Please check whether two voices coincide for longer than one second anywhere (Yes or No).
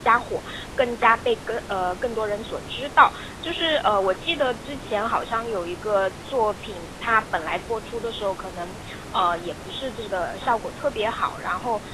No